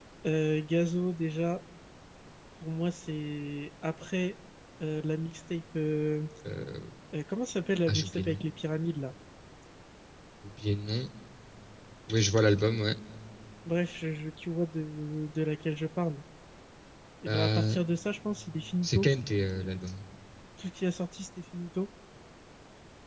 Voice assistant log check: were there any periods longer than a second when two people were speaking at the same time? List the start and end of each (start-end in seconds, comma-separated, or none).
none